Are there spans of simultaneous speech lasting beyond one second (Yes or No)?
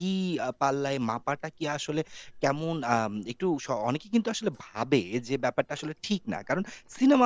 No